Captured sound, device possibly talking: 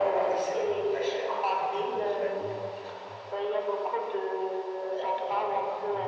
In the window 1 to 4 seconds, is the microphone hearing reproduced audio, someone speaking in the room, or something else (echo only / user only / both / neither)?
both